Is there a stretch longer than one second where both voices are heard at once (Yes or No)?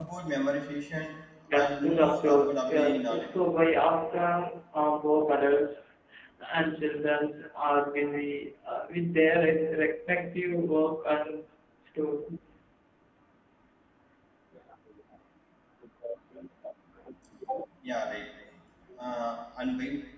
Yes